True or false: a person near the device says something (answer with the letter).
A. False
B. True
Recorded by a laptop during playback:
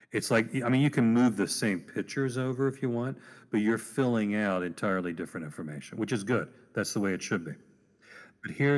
A